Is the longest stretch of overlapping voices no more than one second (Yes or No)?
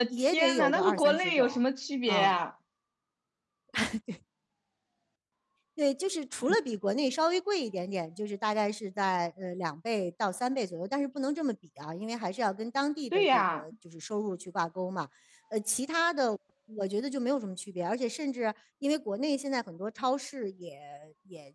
No